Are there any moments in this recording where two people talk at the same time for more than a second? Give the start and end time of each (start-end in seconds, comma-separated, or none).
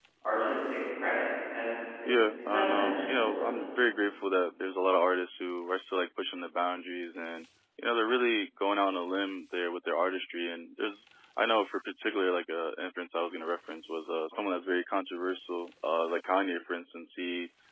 2.1-3.6